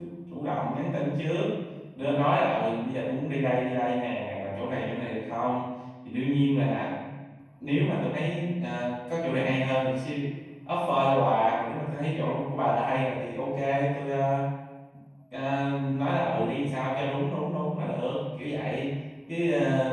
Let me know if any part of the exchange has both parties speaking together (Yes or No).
No